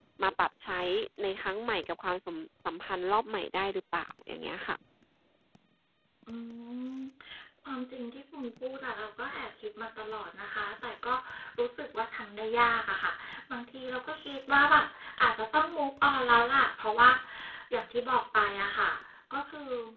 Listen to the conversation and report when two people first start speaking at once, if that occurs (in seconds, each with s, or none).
none